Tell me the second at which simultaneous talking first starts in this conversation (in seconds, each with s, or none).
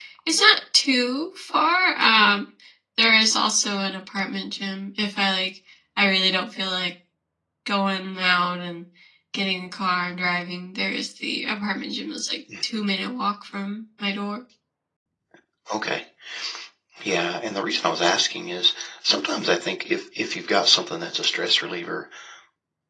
none